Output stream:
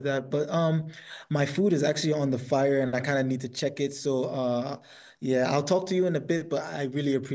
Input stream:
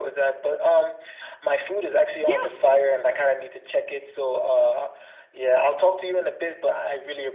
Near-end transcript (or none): Yeah,